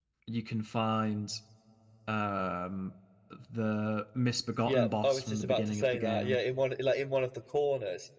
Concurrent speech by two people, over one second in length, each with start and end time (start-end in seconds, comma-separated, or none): 4.7-6.4